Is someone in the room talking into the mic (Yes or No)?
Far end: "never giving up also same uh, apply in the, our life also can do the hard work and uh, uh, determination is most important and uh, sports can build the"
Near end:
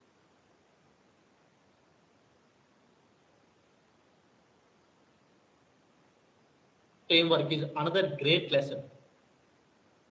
Yes